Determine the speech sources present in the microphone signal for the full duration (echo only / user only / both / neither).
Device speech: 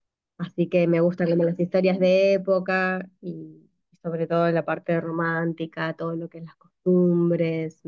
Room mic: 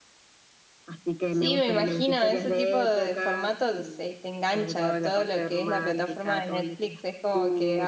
both